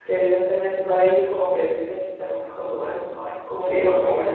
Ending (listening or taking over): taking over